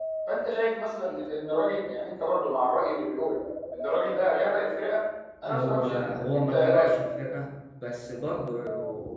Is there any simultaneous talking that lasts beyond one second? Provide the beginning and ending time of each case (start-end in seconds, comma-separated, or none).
5.4-6.9